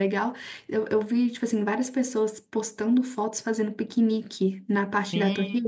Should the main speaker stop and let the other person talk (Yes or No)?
Yes